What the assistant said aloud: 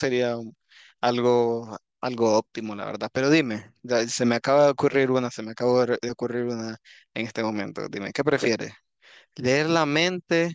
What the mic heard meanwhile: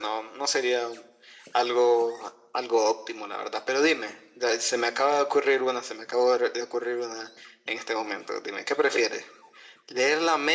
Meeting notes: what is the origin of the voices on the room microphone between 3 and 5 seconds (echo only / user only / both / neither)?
echo only